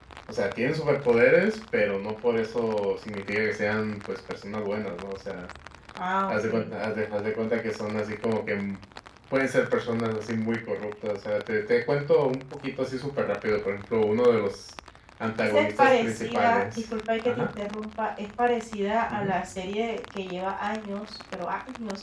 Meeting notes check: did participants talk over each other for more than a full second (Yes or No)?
Yes